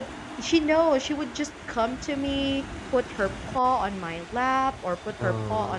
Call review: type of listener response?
listening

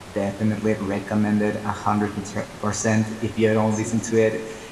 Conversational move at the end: listening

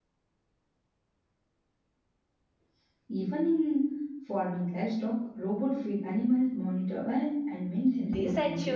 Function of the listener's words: taking over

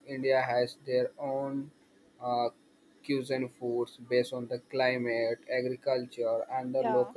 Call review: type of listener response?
listening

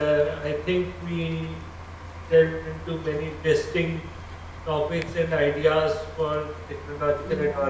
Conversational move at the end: listening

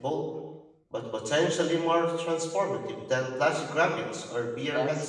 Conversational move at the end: taking over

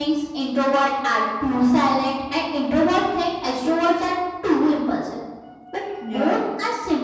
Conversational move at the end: listening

